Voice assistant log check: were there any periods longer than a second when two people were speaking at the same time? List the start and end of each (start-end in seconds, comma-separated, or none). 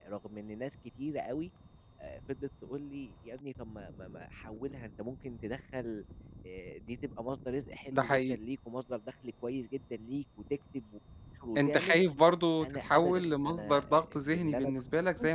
12.6-14.7